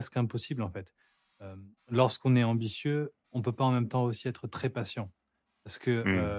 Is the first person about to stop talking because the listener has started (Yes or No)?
No